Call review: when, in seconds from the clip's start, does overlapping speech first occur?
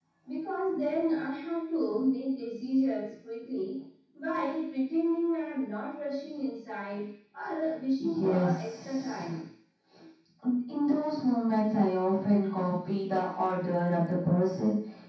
8.0 s

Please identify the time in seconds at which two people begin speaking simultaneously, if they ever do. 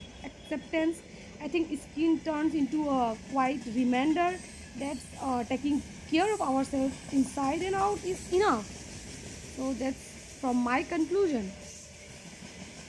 none

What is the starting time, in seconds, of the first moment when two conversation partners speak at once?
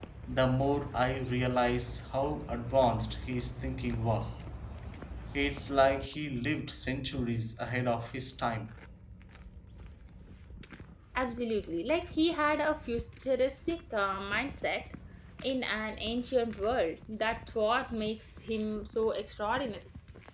none

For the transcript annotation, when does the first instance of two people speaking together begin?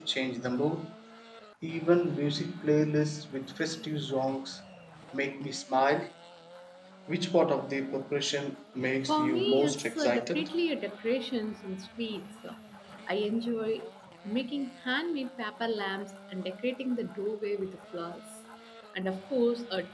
9.1 s

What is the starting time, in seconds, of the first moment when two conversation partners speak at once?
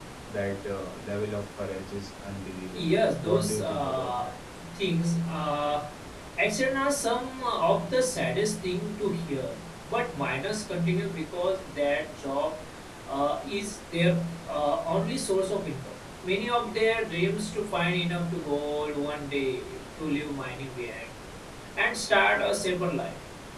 2.7 s

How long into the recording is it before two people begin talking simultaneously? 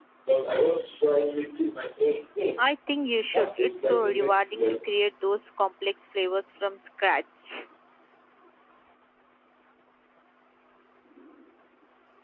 3.3 s

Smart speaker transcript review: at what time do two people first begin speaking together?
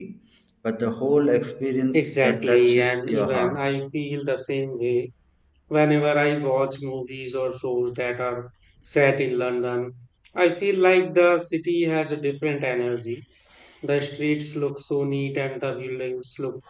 1.9 s

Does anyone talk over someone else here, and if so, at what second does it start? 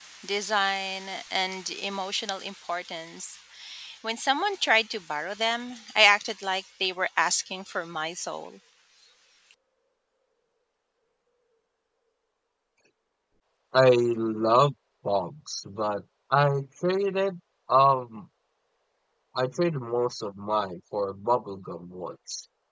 none

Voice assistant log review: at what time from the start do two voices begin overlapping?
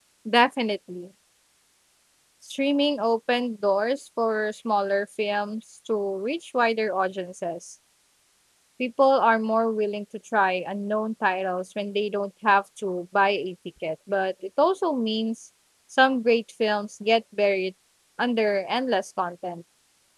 none

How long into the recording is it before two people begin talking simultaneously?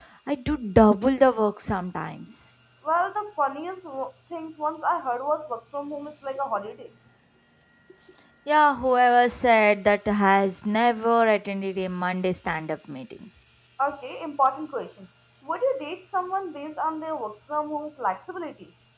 none

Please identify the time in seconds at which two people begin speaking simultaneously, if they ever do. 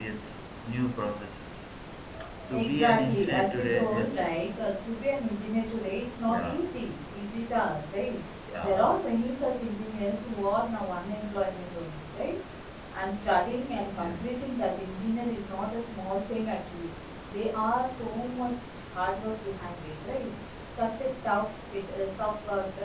2.5 s

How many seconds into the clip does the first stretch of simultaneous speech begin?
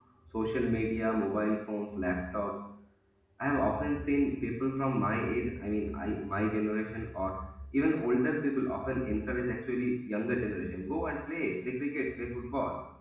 none

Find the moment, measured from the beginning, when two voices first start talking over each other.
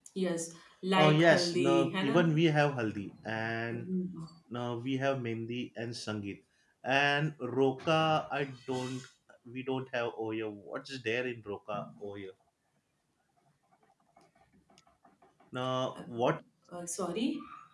0.9 s

